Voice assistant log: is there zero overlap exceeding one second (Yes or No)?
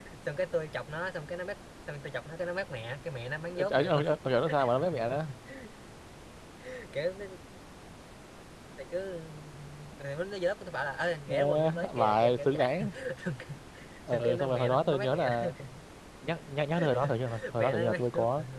No